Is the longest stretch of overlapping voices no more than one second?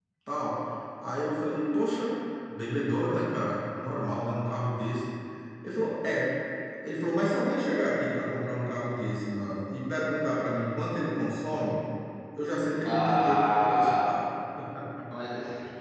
No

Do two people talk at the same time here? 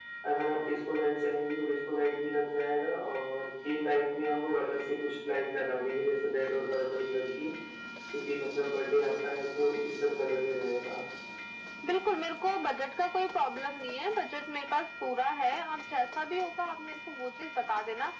No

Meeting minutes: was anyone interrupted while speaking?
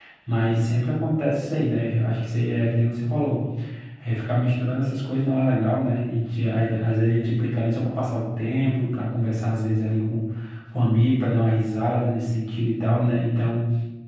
No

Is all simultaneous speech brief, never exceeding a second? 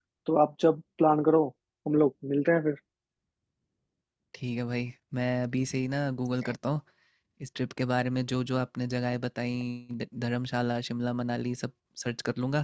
Yes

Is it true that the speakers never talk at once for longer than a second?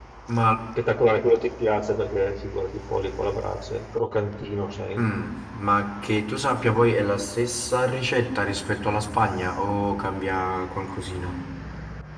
Yes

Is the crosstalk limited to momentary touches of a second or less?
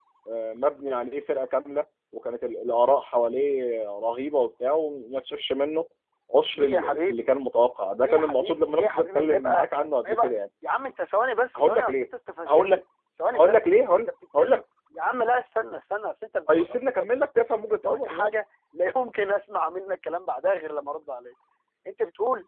No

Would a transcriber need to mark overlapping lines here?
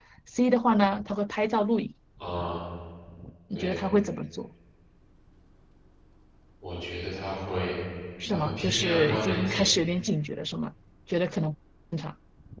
Yes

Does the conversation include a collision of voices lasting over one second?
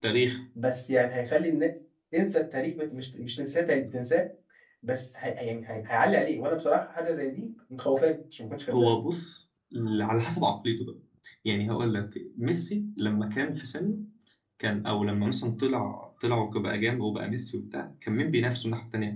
No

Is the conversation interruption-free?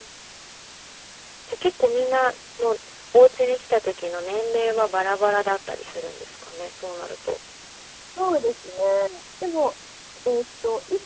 Yes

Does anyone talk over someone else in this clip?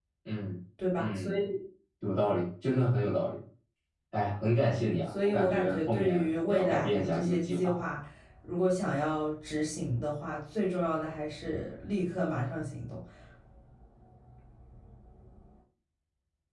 Yes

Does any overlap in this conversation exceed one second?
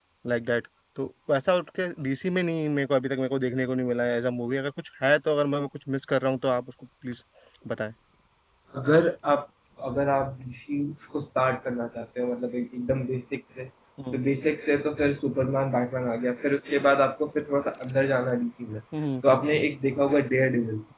No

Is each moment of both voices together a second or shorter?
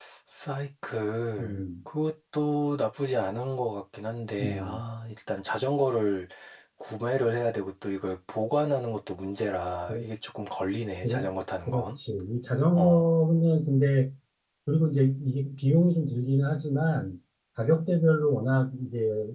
Yes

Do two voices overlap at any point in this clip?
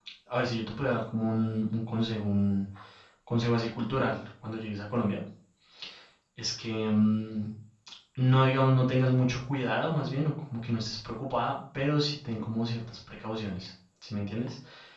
No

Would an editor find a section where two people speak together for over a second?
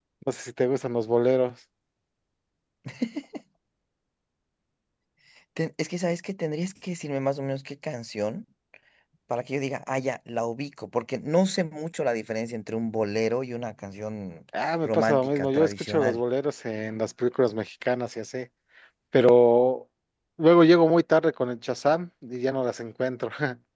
Yes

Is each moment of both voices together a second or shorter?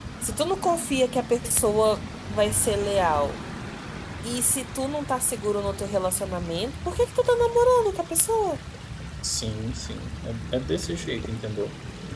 Yes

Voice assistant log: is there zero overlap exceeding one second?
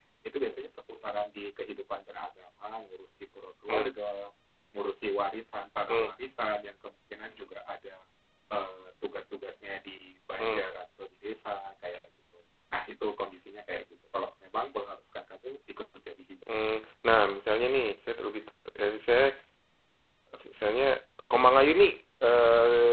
Yes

